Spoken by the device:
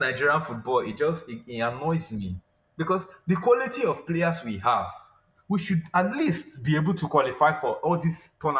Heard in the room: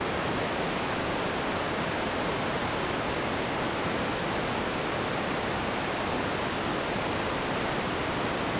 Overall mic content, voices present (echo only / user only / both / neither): neither